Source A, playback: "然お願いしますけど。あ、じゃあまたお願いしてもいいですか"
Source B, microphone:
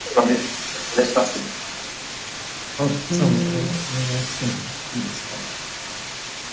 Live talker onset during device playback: 3 s

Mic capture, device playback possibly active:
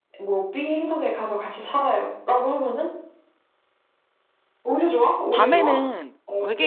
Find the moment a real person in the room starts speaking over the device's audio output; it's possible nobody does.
5 s

